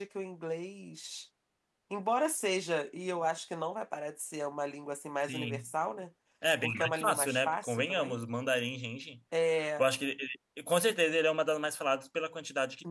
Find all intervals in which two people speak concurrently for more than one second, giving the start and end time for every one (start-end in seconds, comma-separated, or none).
6.6-8.2